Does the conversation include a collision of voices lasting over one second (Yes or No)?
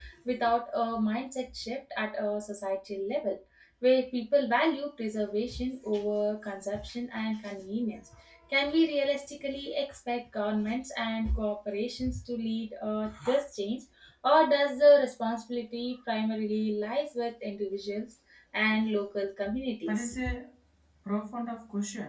No